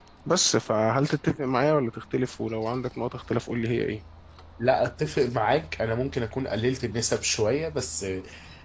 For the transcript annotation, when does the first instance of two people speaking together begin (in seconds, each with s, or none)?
none